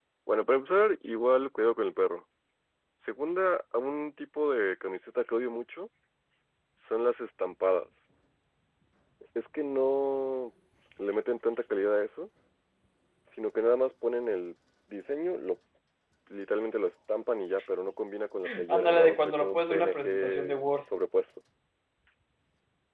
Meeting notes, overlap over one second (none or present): present